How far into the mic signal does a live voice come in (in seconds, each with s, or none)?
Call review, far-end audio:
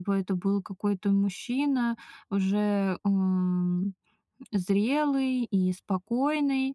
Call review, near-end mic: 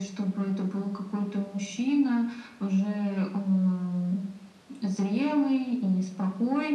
none